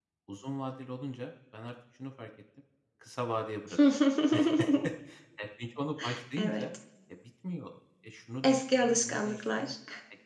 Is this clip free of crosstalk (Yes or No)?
No